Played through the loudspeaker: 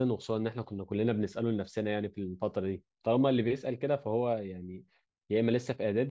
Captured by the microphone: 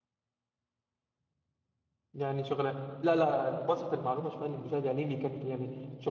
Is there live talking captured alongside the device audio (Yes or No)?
Yes